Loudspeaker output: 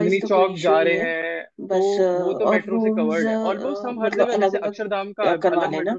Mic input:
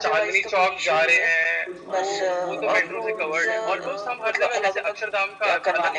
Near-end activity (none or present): present